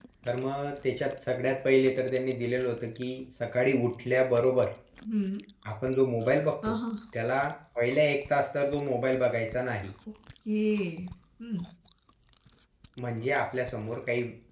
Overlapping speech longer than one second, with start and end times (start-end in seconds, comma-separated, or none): none